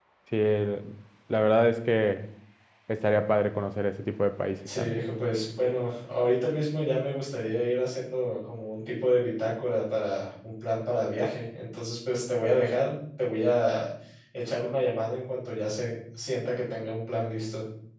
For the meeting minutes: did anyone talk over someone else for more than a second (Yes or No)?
No